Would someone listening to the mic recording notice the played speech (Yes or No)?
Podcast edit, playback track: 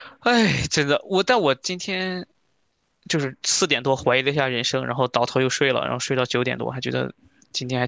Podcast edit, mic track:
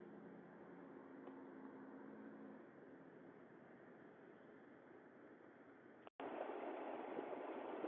No